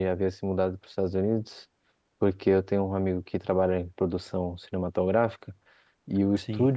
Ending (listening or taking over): listening